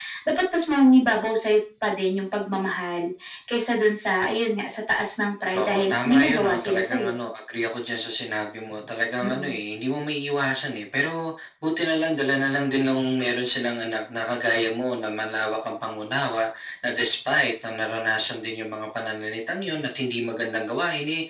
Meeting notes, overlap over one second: present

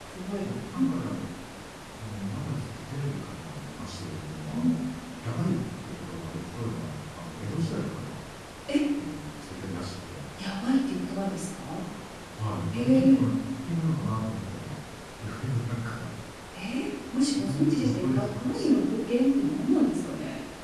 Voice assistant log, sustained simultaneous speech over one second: present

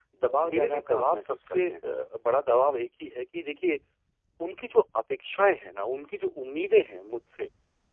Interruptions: present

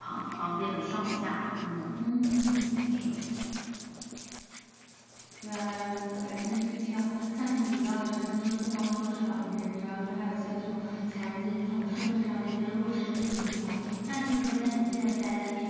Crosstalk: none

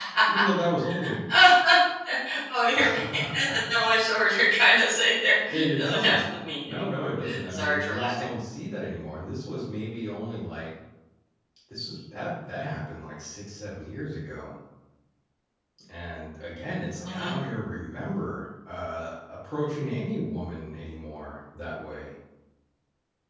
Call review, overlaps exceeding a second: present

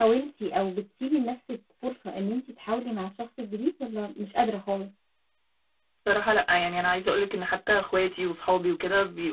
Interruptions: none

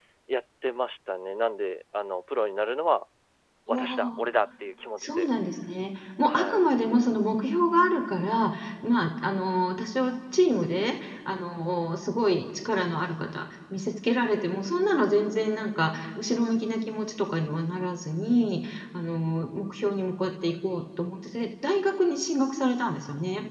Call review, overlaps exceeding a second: none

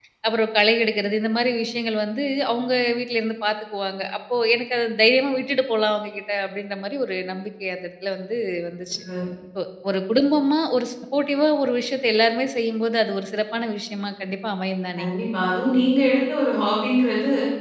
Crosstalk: none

